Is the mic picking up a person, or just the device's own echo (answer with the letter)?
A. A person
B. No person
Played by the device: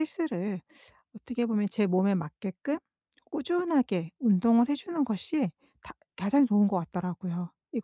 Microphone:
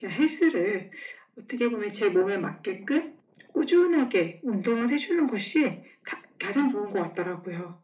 B